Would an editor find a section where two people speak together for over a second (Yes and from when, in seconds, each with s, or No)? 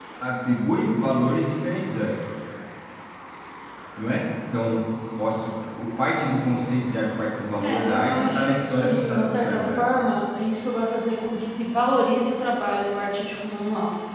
Yes, from 7.6 s